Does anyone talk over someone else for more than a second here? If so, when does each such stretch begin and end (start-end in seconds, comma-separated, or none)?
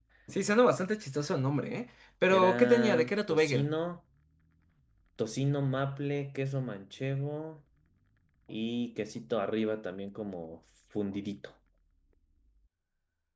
2.4-3.7